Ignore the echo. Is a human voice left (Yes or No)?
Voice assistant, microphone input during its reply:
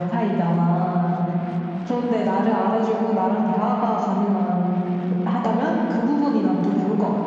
No